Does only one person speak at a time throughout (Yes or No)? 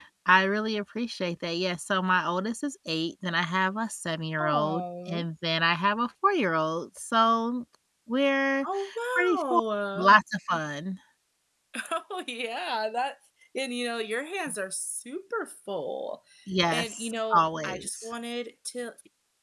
No